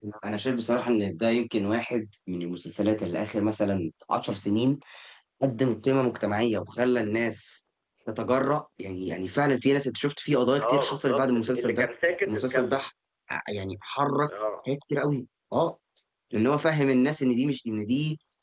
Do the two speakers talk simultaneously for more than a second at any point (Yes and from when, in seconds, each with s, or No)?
Yes, from 10.6 s